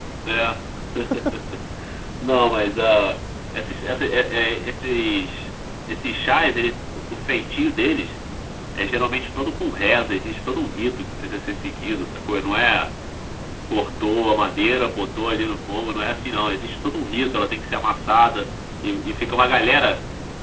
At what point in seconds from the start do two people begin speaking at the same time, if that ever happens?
none

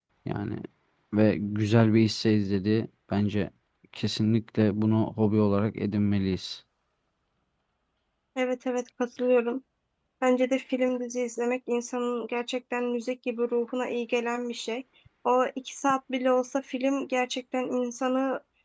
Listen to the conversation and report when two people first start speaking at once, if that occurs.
none

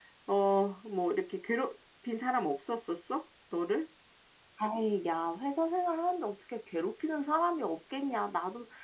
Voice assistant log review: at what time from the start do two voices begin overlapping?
none

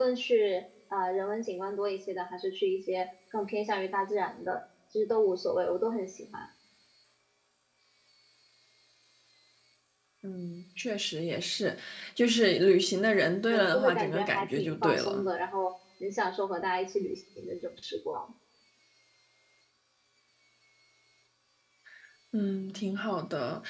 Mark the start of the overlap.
13.5 s

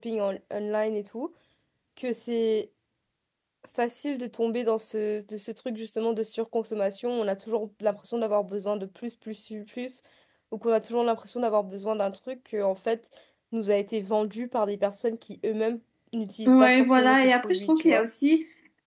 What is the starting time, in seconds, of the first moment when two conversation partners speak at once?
16.4 s

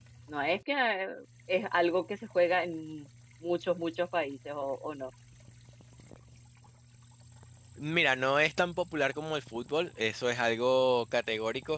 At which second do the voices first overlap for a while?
none

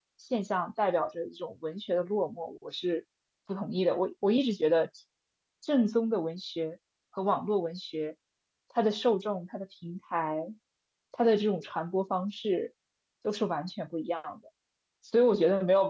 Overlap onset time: none

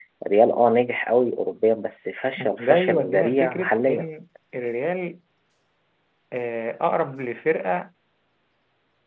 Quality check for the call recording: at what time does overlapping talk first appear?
2.4 s

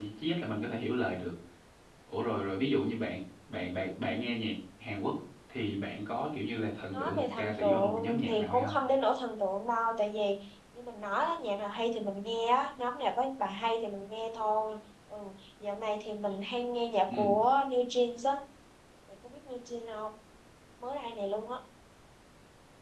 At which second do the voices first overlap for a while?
6.9 s

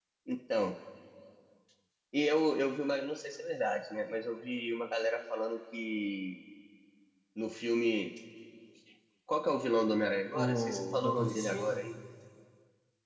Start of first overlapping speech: 10.3 s

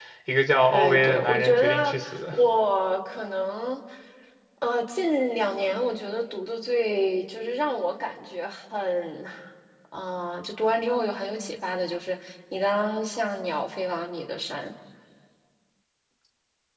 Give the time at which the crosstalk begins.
0.7 s

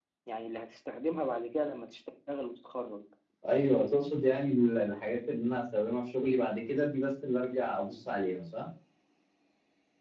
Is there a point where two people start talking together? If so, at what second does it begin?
none

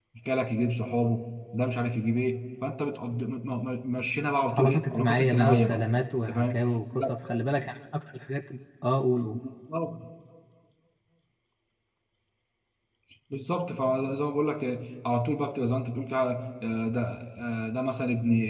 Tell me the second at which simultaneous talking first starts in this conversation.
4.6 s

